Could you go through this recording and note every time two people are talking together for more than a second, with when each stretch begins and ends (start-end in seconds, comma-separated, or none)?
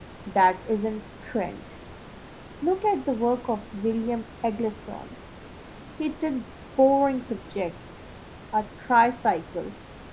none